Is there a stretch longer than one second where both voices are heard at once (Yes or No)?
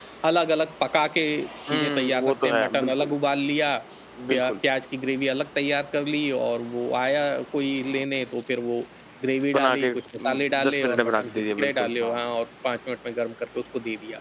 Yes